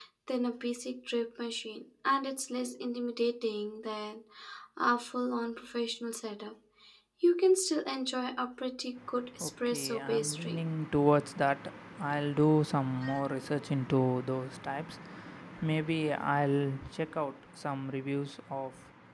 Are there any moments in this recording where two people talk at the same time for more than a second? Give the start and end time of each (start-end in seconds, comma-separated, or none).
9.4-10.7